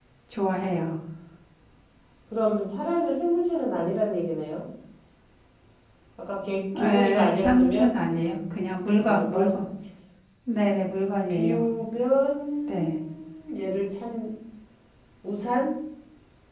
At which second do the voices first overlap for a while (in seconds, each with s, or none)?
6.8 s